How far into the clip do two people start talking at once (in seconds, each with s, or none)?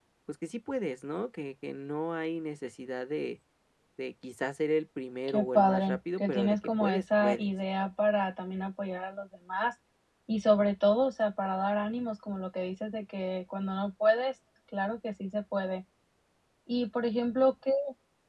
5.3 s